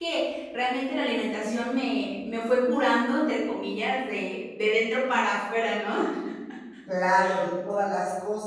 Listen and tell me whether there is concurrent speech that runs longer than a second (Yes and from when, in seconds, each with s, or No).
No